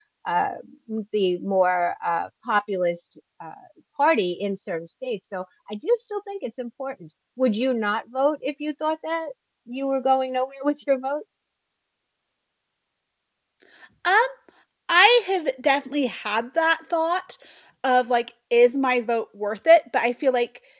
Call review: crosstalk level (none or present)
none